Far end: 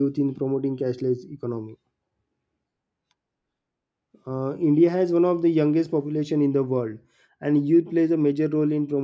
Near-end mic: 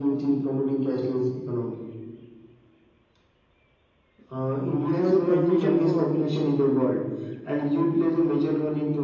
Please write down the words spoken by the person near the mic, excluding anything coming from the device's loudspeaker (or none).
So conclusion for